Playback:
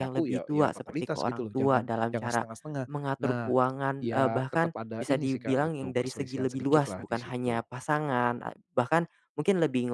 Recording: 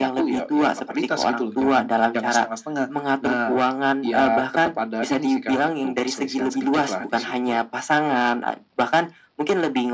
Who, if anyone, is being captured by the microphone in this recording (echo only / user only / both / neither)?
echo only